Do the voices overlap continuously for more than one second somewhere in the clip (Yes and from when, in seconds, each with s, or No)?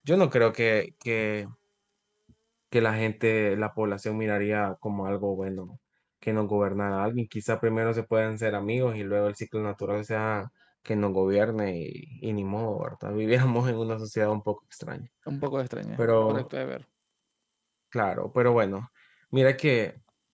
No